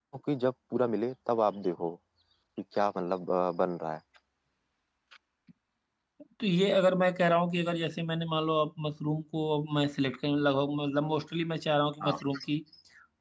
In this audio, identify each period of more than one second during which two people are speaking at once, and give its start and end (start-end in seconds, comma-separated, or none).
none